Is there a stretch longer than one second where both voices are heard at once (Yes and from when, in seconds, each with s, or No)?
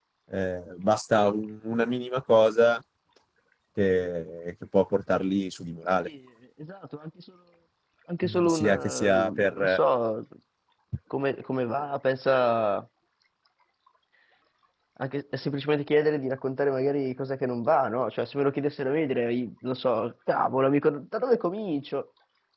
Yes, from 8.2 s